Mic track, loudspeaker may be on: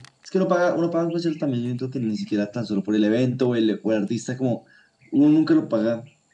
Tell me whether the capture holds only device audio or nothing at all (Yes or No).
Yes